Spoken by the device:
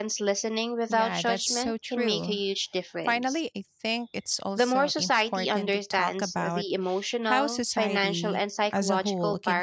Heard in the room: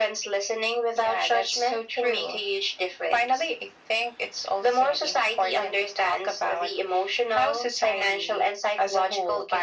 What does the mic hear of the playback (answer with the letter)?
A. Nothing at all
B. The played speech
B